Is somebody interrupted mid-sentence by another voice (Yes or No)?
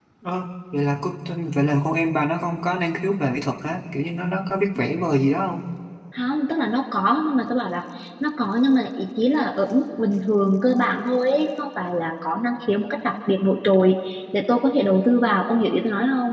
No